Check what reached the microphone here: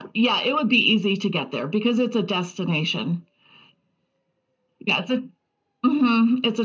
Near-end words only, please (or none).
none